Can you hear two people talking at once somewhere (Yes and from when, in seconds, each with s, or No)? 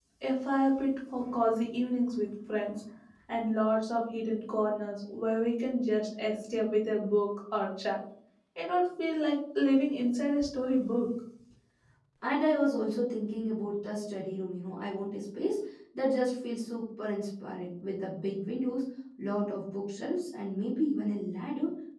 No